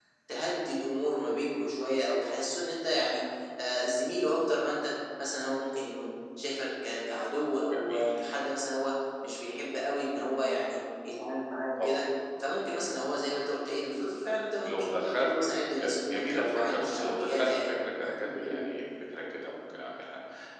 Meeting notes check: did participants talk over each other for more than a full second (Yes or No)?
Yes